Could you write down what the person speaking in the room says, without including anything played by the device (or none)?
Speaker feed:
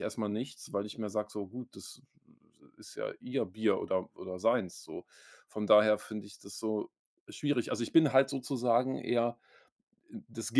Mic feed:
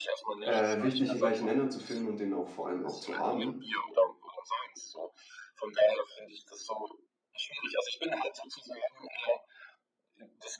äh, wichtig, 'n gleichen Nenner zu finden und den auch vor allem auch zu haben.